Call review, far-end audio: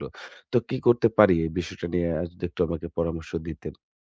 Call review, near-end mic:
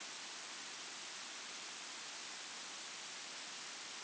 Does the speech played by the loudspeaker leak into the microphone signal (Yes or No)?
No